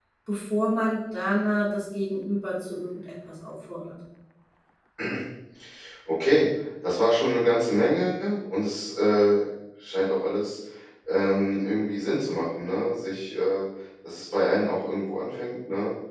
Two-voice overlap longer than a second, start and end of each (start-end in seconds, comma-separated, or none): none